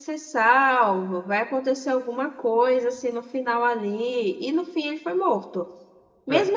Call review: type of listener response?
listening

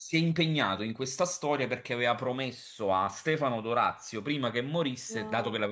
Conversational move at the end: listening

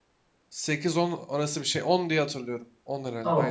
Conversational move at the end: taking over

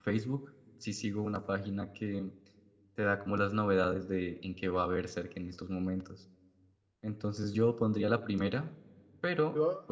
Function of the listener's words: listening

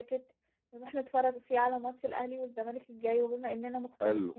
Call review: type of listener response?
listening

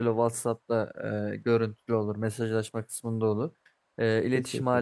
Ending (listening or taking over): listening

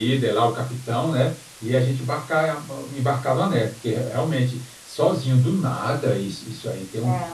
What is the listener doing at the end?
listening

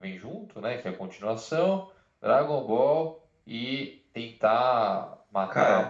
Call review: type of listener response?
listening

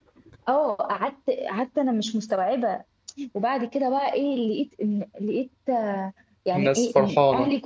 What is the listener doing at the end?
listening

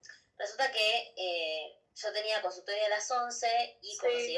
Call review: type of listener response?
listening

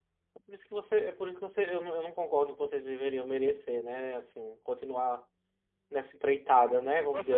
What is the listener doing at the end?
taking over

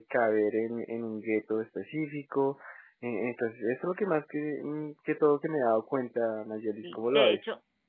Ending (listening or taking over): taking over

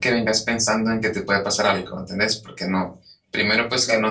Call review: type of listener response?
listening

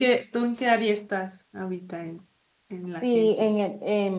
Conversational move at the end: taking over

